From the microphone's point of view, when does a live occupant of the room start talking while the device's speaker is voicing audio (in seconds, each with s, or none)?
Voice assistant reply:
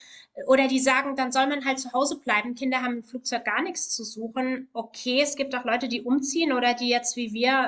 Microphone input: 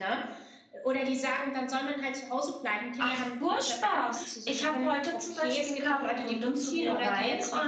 3.0 s